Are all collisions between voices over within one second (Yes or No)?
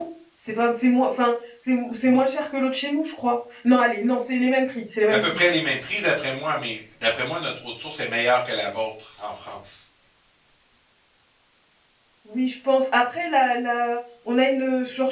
Yes